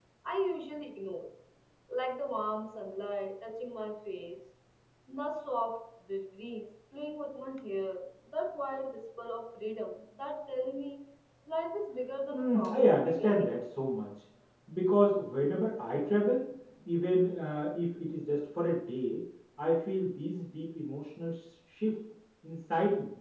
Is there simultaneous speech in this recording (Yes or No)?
Yes